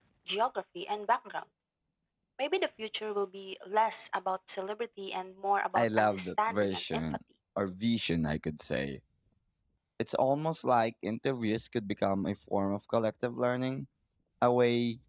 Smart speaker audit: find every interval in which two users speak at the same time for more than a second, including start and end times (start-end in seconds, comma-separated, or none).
5.8-7.0